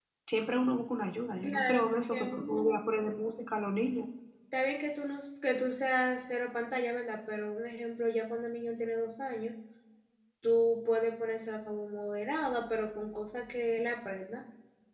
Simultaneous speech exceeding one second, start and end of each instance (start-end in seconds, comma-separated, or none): 1.4-2.9